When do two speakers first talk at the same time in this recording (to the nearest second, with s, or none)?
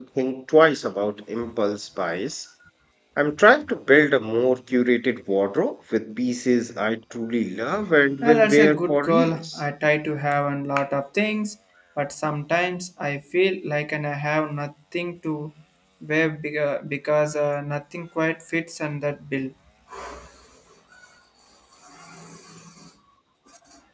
8 s